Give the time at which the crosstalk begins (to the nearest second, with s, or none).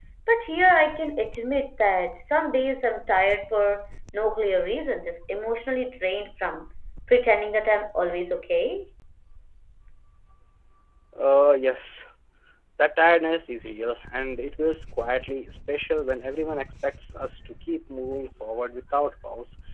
none